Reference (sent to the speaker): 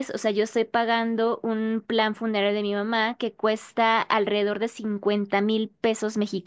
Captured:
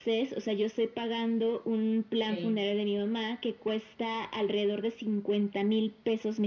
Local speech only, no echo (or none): sí,